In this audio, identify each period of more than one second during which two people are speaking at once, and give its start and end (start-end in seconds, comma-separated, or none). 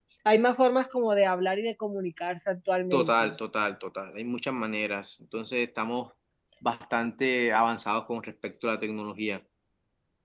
none